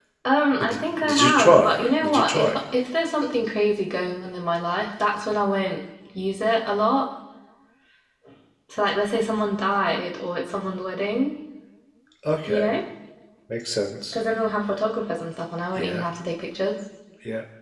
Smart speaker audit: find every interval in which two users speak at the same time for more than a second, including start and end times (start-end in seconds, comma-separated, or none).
0.6-2.6